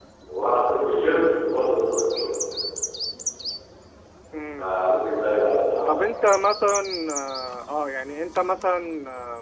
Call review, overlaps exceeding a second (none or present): none